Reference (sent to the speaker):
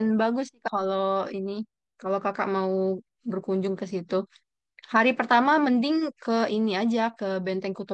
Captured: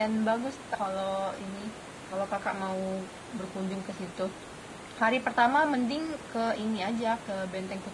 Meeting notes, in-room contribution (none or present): none